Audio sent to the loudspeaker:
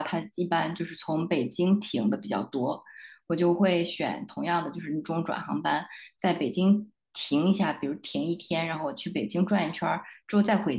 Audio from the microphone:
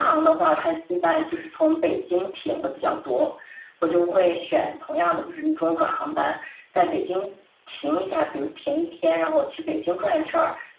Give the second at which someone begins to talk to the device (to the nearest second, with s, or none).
none